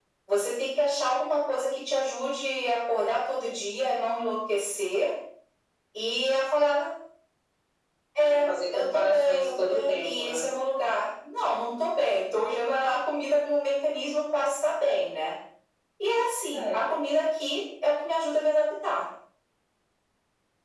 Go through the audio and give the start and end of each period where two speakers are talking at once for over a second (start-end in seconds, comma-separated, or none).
8.2-10.4